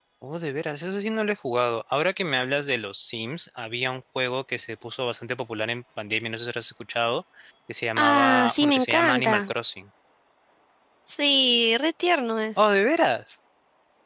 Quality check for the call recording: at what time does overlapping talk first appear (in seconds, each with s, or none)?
8.0 s